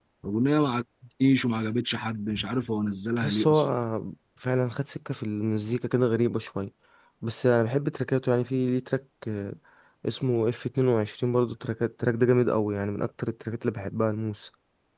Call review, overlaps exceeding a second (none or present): none